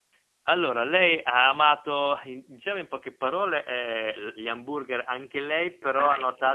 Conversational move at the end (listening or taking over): listening